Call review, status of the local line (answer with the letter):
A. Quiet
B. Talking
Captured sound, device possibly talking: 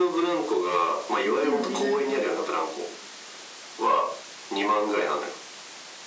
B